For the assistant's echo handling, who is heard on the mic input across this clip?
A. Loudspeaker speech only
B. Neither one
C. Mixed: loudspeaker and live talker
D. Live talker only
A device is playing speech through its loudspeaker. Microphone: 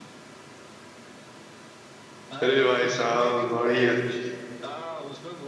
C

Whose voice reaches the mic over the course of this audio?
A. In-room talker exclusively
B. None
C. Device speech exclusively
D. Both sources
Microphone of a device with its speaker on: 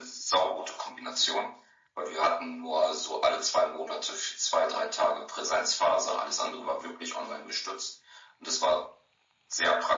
C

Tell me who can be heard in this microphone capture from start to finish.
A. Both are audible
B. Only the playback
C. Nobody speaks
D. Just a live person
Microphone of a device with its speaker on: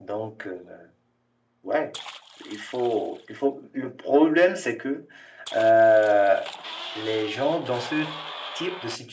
B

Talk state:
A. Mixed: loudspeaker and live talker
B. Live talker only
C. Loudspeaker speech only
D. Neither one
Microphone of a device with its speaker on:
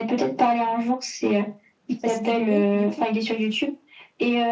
A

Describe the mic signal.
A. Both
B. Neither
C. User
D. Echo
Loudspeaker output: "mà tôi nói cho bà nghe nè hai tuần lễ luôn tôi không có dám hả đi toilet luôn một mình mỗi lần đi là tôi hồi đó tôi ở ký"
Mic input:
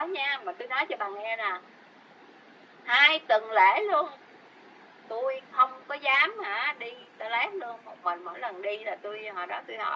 D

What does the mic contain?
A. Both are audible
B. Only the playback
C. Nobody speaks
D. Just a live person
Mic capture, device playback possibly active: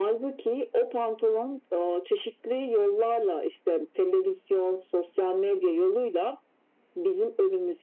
B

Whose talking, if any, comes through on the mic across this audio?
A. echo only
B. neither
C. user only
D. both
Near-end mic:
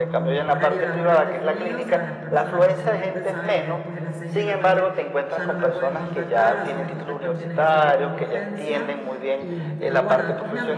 D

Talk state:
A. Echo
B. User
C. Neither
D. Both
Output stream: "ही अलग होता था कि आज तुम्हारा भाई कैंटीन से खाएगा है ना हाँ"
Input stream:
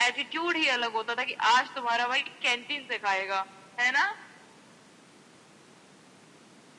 A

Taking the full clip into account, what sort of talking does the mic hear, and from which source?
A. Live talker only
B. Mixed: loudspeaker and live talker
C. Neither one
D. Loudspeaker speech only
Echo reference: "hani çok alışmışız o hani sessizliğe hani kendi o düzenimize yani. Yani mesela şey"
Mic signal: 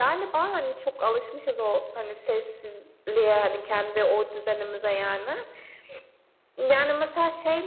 D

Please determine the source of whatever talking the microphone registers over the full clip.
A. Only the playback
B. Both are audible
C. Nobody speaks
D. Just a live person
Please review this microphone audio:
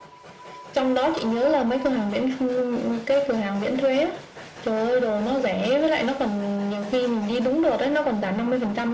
A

